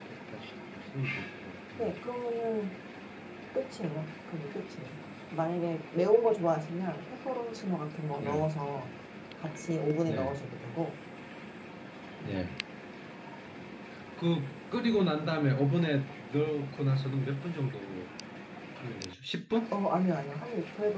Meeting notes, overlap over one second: none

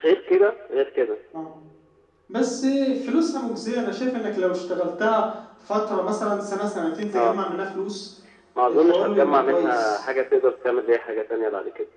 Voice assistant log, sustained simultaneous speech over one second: present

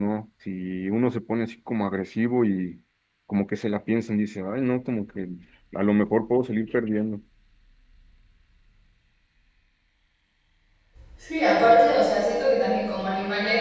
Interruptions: none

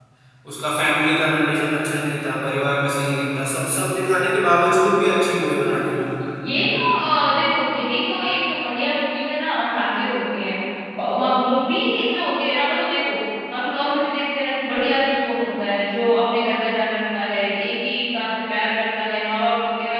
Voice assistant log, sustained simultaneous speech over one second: none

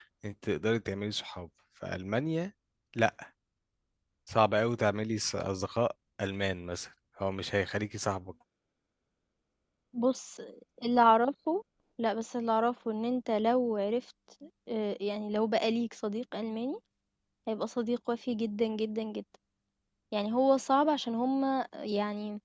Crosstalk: none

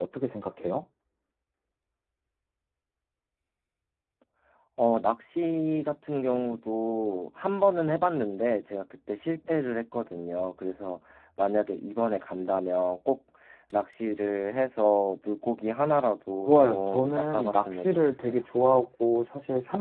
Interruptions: present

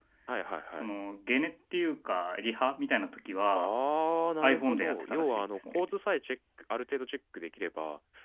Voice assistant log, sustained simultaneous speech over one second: present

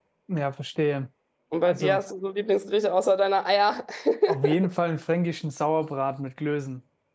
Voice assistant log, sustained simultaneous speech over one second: none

